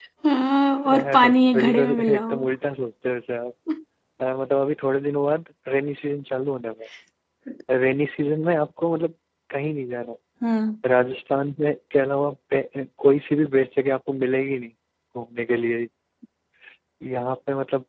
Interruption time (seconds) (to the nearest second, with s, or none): 1 s